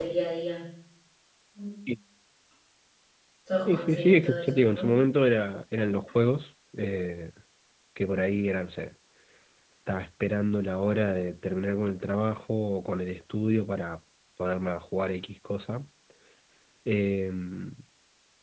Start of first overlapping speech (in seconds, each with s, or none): 3.7 s